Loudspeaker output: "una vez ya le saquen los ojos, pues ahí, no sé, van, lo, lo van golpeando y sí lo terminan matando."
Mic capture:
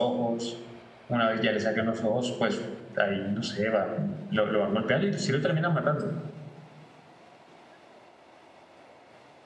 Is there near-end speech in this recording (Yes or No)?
No